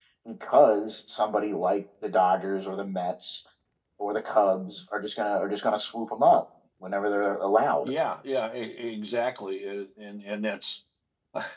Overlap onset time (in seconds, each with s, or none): none